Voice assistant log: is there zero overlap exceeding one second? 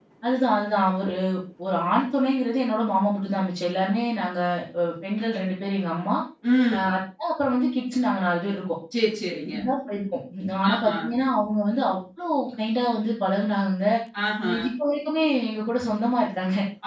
Yes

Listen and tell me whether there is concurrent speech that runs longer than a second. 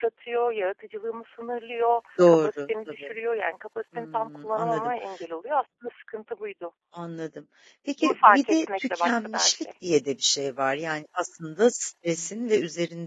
Yes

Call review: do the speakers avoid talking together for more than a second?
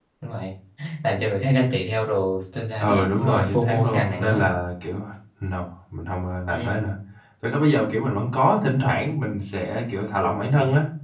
No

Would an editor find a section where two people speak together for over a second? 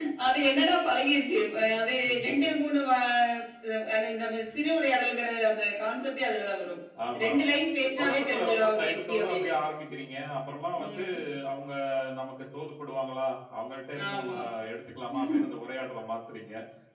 Yes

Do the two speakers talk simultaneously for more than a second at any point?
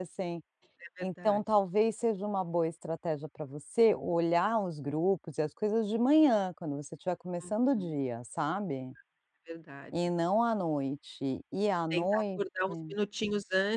No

